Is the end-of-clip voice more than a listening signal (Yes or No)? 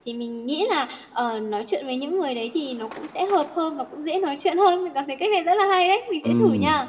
Yes